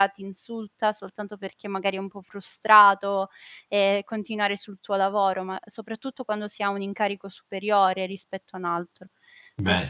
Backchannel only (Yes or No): Yes